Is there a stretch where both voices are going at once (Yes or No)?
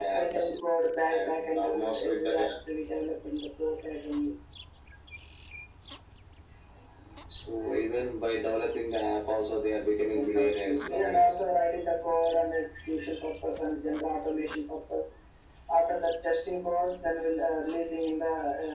Yes